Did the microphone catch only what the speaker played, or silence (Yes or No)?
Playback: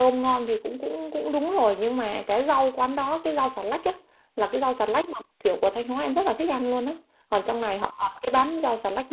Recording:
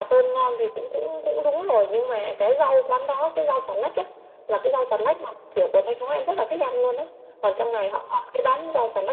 Yes